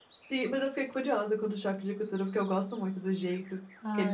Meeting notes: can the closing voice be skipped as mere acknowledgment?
No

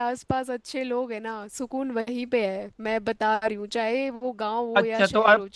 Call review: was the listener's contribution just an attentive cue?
No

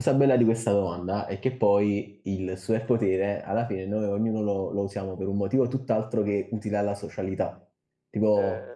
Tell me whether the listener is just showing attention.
Yes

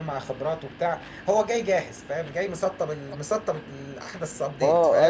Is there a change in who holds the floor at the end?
Yes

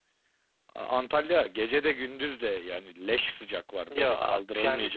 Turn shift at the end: Yes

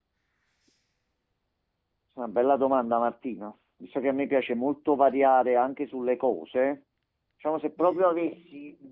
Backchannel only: Yes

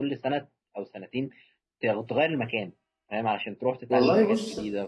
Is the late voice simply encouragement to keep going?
No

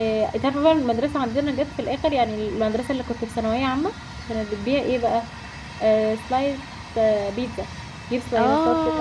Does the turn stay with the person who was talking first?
No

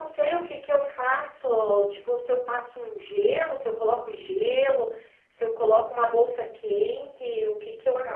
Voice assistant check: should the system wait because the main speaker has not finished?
No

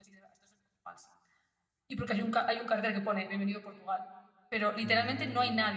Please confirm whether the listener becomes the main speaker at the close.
No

